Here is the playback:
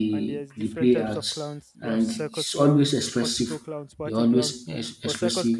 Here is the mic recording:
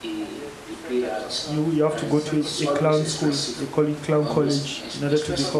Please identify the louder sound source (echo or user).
user